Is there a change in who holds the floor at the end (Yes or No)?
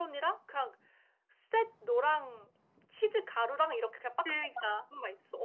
No